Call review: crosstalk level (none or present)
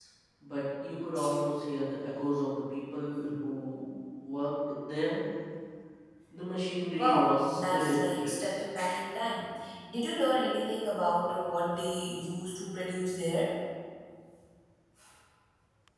present